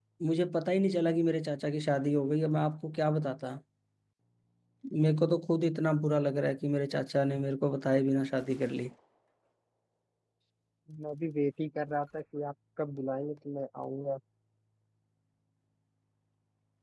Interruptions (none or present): none